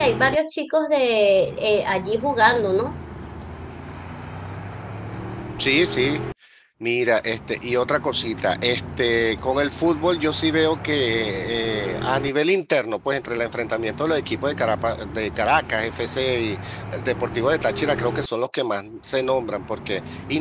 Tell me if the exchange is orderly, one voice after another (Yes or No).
Yes